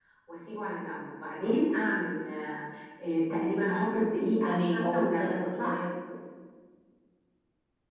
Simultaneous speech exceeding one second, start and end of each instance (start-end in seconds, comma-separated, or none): 4.4-5.9